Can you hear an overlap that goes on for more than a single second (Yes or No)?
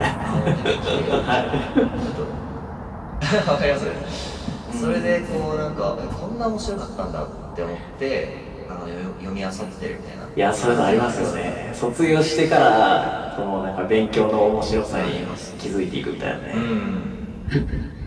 Yes